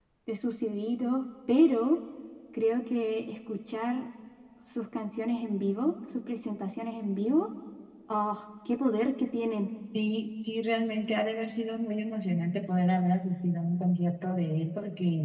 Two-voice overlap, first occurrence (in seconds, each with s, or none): none